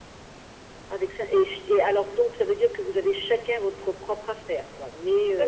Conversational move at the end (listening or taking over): taking over